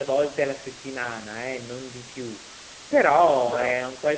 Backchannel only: Yes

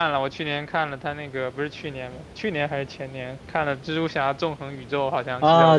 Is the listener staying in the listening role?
No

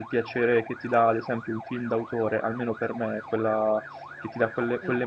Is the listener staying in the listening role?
Yes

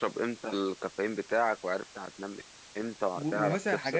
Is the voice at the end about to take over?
Yes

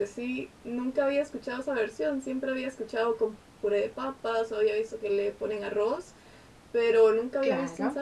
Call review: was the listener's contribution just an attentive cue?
No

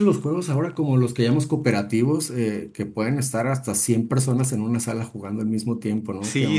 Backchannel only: No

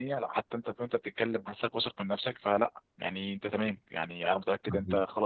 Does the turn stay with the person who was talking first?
Yes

